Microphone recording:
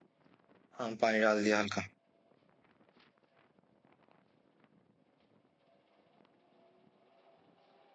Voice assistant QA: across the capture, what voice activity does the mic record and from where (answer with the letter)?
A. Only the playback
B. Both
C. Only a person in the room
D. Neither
C